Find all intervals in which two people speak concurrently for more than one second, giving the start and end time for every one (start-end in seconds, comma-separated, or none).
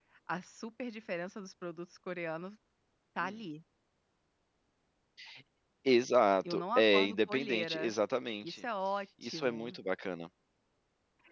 6.5-7.9